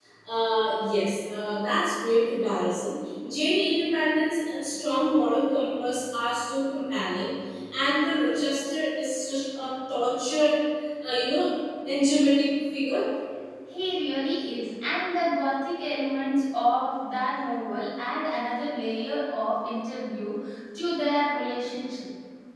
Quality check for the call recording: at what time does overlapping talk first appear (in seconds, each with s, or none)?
none